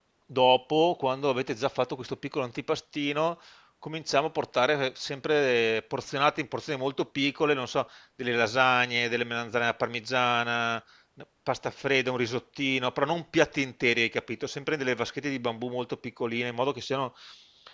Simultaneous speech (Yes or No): No